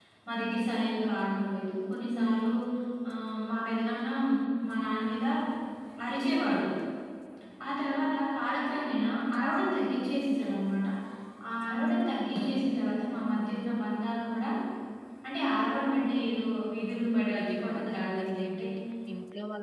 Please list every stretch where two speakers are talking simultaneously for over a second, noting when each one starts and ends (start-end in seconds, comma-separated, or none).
17.4-18.7